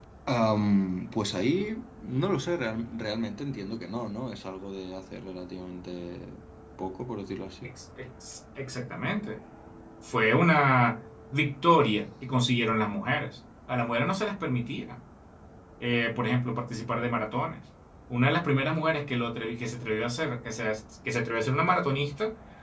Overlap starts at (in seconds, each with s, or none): none